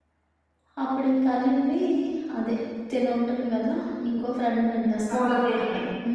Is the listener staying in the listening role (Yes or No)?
Yes